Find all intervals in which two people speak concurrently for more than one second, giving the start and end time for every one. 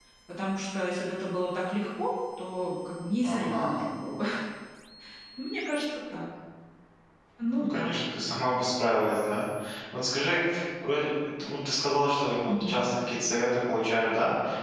none

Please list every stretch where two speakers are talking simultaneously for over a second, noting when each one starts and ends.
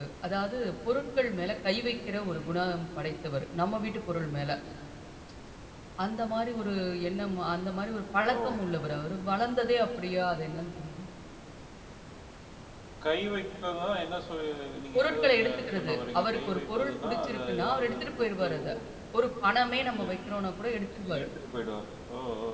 14.9-18.5

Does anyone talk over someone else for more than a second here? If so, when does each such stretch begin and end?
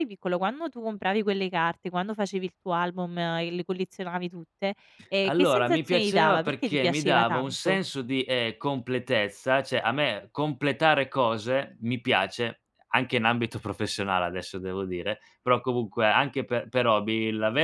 5.2-7.8

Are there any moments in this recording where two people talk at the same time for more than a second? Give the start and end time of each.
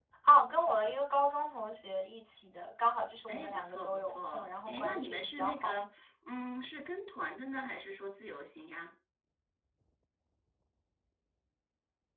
3.3-5.8

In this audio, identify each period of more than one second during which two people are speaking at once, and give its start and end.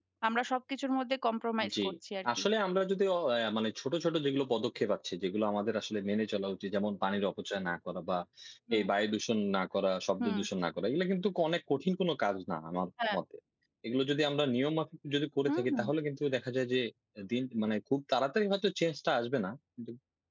none

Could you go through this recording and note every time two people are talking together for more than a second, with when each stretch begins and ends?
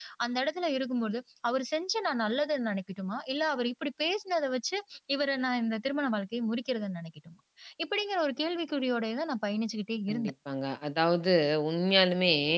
none

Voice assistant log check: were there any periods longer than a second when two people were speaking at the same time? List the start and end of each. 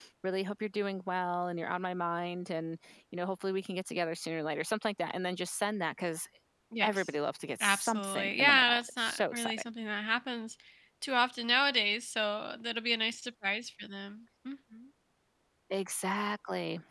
7.6-9.7

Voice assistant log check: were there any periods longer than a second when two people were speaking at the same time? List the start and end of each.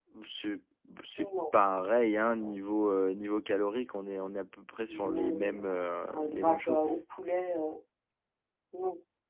4.9-6.8

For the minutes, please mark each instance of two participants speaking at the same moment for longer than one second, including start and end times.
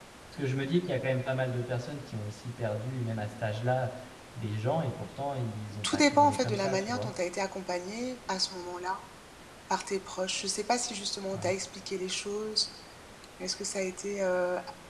5.8-7.1

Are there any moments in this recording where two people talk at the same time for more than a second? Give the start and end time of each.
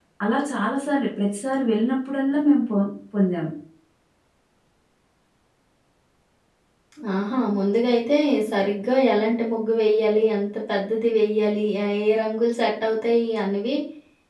none

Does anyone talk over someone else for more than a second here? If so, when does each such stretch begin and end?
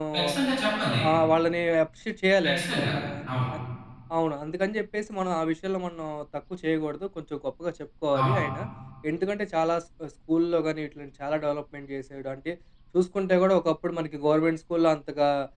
none

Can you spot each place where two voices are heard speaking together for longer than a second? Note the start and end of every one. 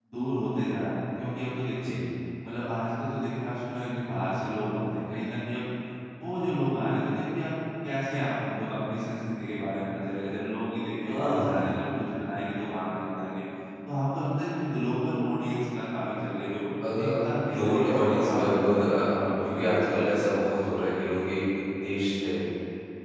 17.5-20.4

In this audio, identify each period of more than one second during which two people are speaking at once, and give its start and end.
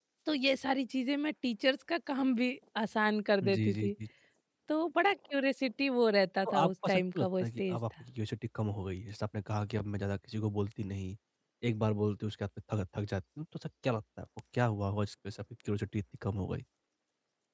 6.5-7.8

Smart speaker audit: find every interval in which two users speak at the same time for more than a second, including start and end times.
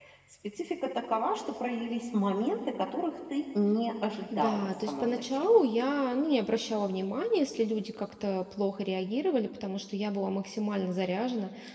4.4-5.6

